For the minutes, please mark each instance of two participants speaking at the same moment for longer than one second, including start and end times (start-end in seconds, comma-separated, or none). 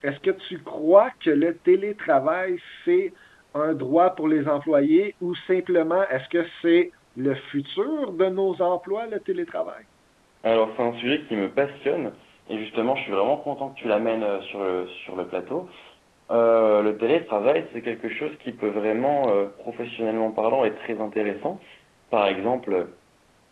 none